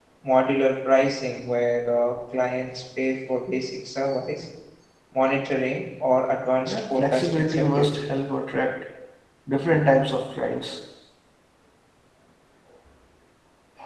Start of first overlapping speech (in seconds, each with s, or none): 6.7 s